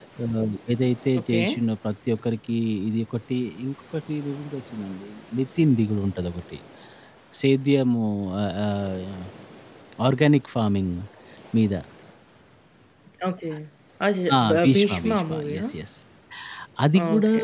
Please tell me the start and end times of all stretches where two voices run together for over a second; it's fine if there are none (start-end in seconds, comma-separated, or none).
14.4-15.6